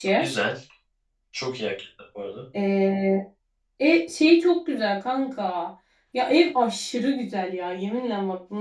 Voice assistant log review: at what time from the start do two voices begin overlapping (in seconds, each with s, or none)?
none